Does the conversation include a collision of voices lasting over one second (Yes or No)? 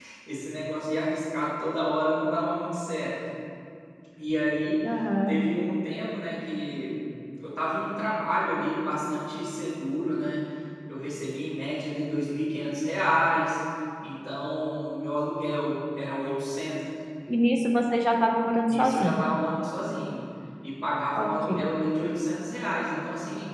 No